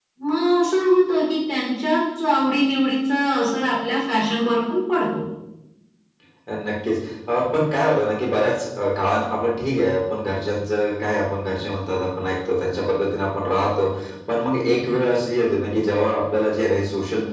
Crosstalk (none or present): none